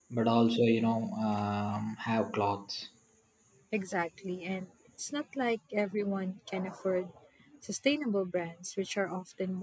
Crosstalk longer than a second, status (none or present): none